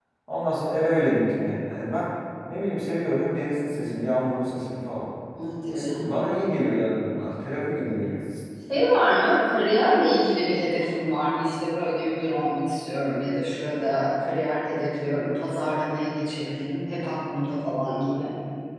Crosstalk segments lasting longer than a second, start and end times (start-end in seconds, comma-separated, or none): none